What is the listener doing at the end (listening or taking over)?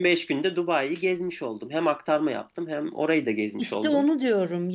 taking over